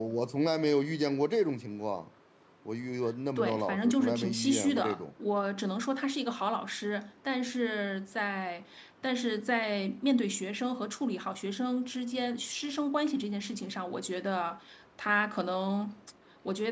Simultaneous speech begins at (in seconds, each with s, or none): 3.4 s